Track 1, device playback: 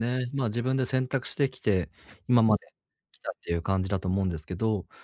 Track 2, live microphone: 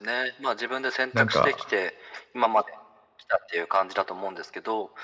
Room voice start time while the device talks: 1.1 s

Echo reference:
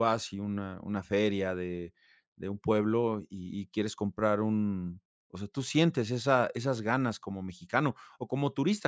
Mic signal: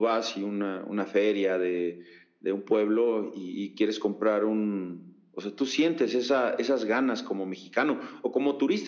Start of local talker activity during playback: none

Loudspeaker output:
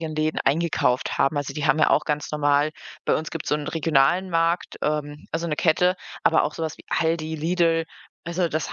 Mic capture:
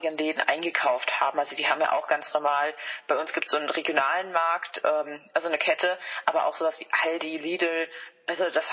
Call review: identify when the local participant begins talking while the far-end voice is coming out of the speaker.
none

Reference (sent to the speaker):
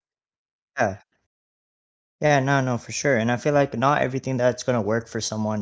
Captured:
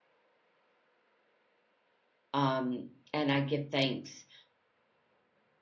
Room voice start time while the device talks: 2.3 s

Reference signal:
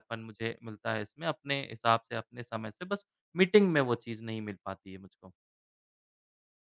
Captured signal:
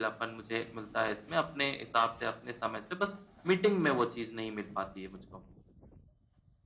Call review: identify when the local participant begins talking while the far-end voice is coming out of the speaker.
none

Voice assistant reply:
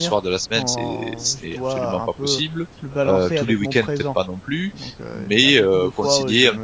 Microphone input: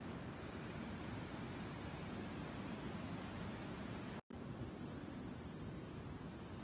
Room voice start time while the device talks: none

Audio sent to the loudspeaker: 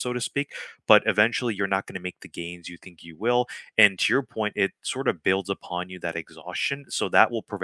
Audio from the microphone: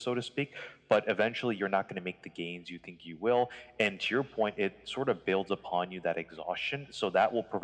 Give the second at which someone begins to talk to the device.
none

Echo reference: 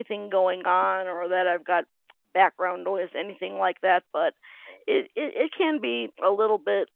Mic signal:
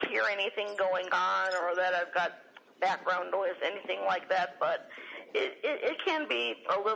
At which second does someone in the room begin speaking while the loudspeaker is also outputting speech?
none

